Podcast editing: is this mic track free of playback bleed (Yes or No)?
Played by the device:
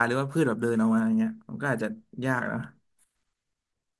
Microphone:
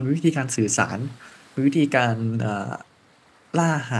Yes